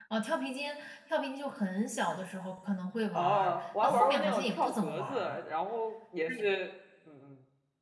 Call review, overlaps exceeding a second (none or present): present